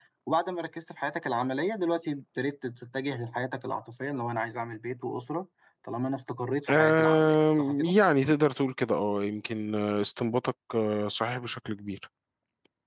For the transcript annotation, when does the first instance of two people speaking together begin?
7 s

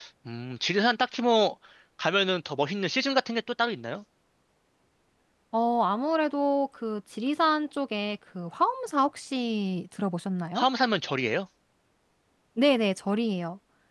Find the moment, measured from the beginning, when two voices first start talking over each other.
none

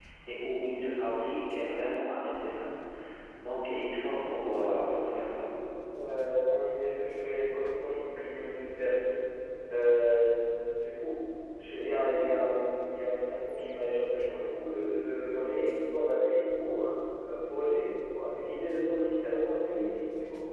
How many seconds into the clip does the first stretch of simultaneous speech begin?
none

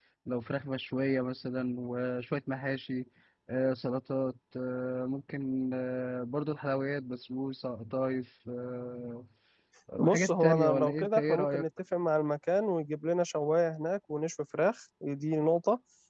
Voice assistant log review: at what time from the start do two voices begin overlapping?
10 s

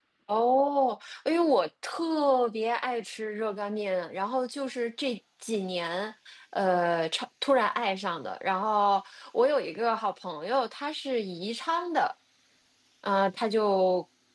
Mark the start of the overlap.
none

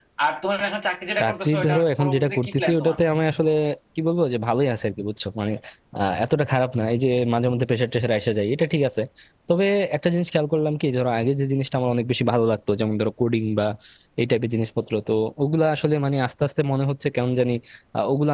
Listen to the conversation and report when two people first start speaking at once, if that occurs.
1 s

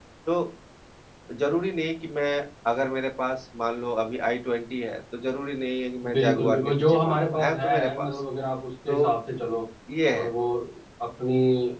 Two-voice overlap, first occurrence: 6 s

